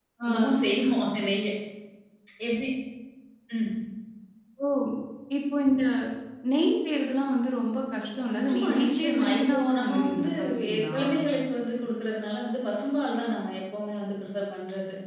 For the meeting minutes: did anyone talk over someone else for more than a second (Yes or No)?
Yes